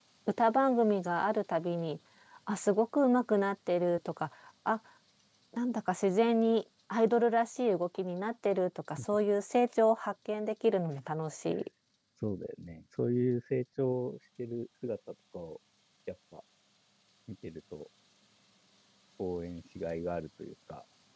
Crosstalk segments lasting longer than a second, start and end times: none

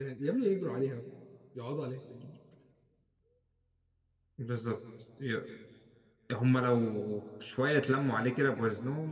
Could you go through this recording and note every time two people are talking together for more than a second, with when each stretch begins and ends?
none

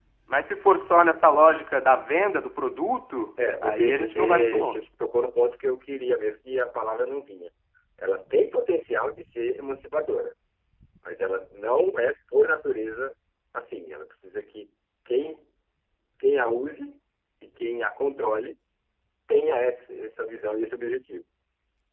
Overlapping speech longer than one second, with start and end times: 3.6-4.8

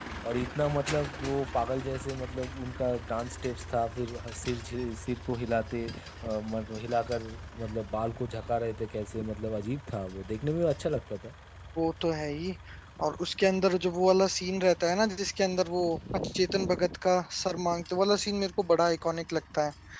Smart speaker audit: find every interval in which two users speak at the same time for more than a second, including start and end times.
none

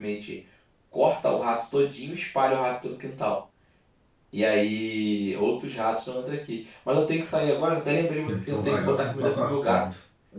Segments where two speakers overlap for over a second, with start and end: 8.3-9.8

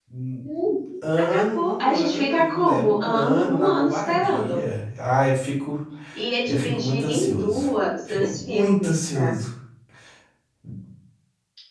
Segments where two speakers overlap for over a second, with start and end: 1.2-4.6, 6.5-7.7, 8.1-9.3

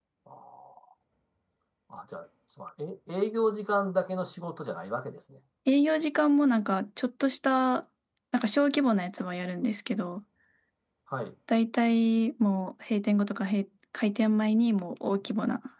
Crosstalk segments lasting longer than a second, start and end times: none

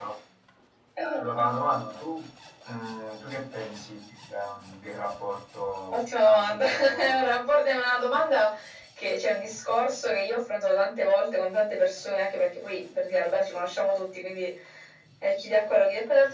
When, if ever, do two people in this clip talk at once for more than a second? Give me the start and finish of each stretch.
5.9-7.3

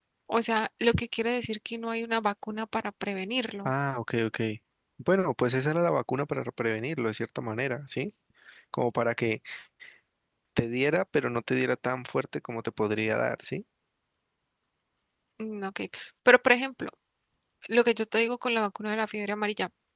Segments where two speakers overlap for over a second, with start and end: none

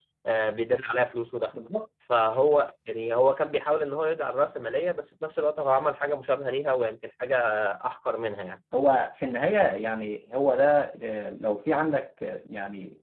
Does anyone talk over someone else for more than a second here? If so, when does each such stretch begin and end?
none

